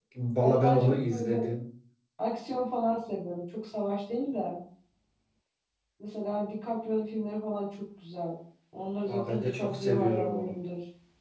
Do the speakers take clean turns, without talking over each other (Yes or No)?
No